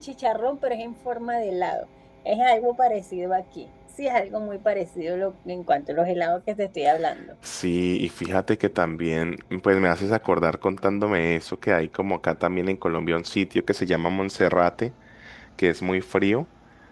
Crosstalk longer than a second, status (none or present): none